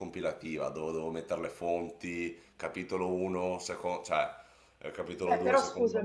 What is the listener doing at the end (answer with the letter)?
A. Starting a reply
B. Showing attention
A